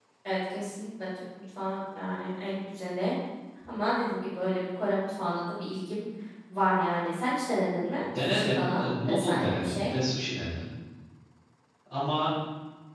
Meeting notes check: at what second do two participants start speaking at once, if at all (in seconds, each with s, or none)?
8.2 s